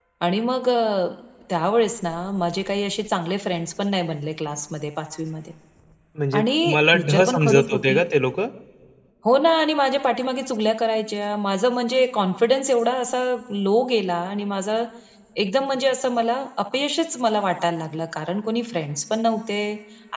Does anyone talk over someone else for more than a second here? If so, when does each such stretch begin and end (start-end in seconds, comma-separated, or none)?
6.4-8.0